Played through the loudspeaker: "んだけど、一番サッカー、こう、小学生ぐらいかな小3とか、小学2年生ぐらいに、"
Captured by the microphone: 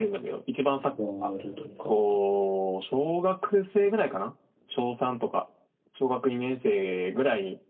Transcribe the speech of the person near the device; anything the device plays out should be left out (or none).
ワールドカップ、